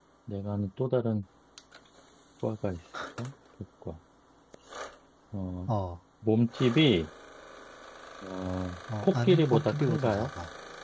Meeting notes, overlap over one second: present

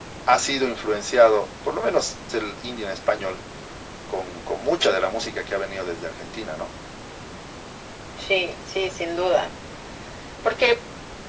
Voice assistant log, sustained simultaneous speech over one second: none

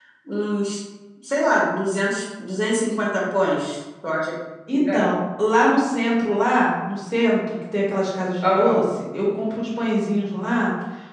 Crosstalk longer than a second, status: none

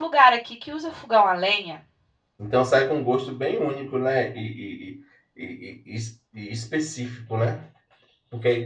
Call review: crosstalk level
none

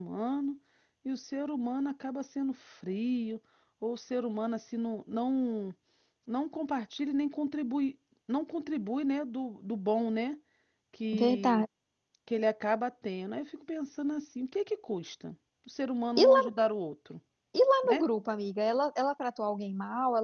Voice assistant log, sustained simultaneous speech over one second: none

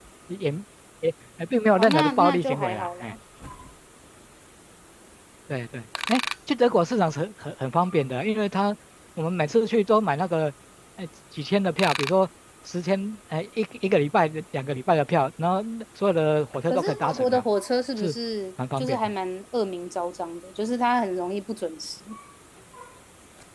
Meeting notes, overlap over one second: present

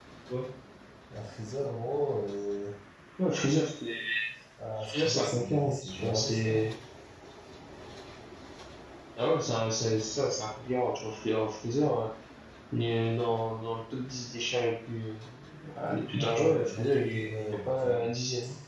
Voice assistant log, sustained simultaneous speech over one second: present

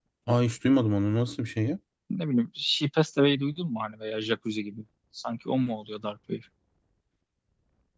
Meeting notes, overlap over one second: none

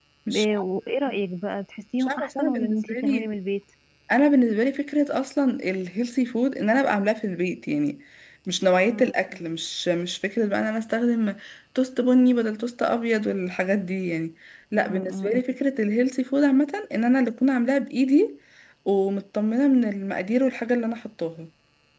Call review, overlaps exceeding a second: present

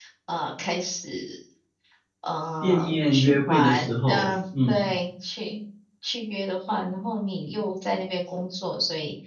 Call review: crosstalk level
present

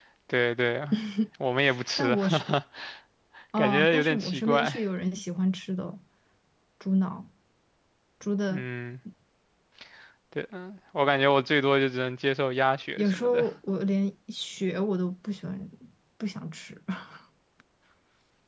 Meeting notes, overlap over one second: present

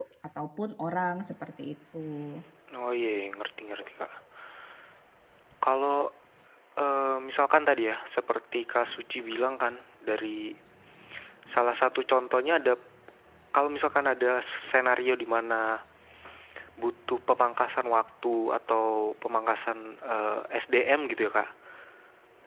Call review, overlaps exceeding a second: none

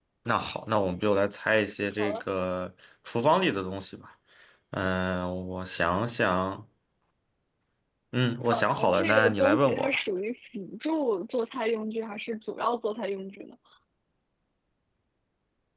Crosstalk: present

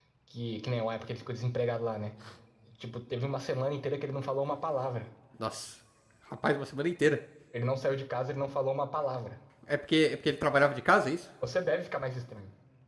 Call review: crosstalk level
none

